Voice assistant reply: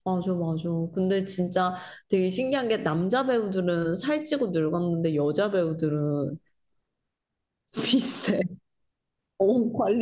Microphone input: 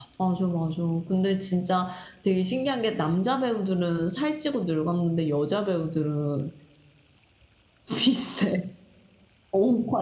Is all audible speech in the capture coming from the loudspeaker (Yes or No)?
Yes